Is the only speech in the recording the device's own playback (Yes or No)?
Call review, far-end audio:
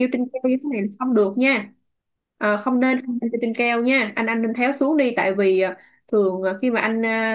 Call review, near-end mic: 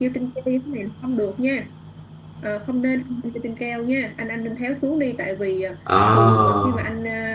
No